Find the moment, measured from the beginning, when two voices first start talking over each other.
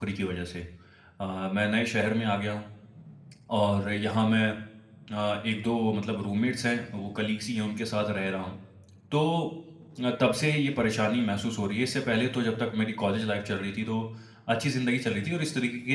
none

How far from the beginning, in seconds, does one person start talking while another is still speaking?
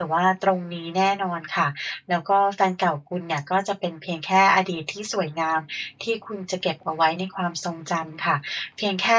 none

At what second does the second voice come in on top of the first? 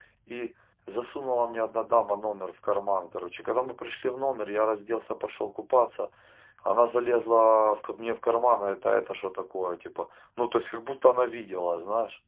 none

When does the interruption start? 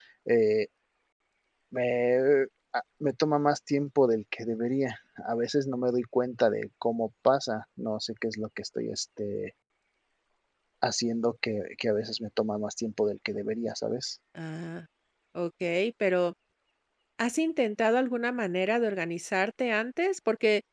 none

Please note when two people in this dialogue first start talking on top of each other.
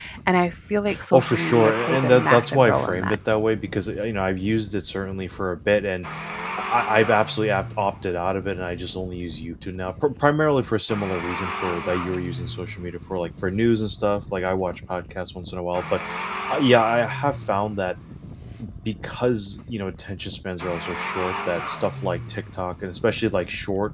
1.1 s

